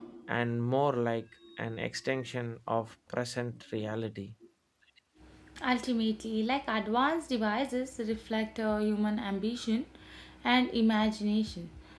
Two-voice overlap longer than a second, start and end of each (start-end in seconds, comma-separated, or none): none